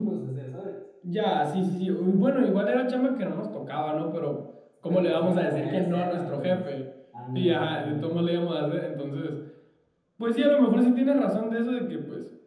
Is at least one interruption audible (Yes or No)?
Yes